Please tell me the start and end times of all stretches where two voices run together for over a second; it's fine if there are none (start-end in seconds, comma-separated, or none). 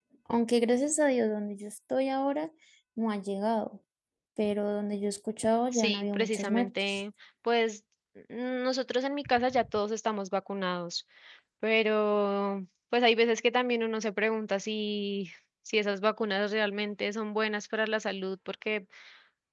5.7-7.0